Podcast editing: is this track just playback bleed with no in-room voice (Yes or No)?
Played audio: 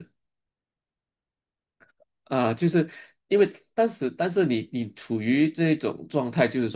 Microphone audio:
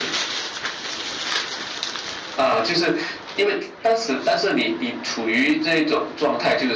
Yes